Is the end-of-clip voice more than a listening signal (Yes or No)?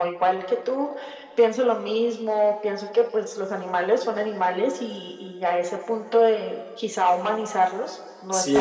Yes